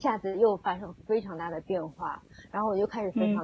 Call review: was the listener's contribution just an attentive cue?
Yes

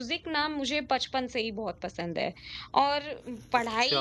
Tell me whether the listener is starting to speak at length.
No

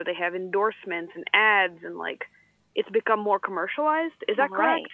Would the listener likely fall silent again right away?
No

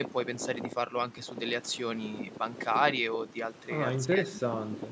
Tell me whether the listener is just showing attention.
No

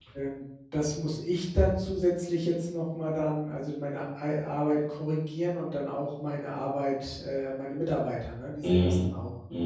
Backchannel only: No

